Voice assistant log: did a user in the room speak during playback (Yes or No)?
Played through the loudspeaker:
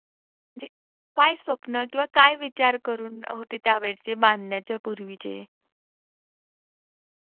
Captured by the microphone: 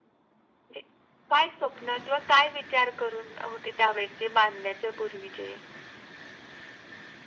No